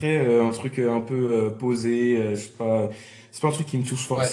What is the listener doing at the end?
listening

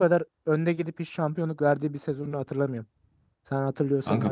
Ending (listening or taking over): taking over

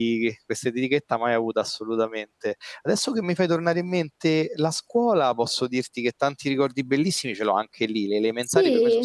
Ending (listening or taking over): listening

